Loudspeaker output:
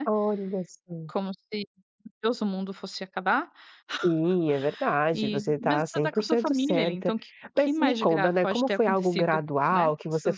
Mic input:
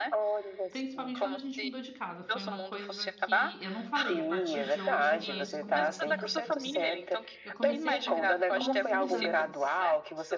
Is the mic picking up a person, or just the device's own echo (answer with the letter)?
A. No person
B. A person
B